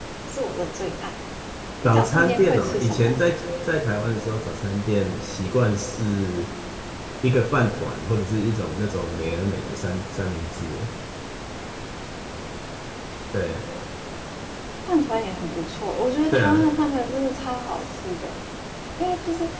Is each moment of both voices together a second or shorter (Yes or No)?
No